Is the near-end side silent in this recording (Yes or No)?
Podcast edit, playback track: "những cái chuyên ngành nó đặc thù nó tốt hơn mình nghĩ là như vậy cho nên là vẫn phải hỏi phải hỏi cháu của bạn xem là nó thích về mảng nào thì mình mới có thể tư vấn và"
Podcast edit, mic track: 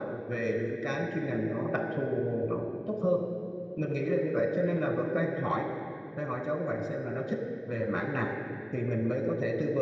Yes